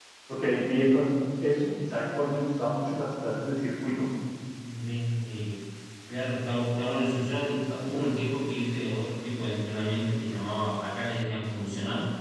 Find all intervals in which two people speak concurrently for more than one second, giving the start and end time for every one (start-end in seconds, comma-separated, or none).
none